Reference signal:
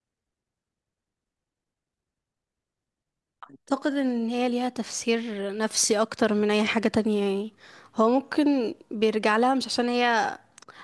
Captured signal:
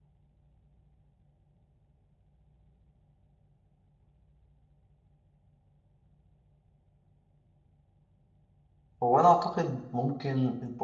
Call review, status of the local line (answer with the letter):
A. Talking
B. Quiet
A